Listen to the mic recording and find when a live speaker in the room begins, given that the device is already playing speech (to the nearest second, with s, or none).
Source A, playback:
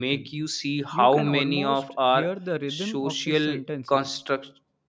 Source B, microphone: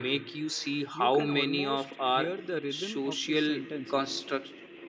none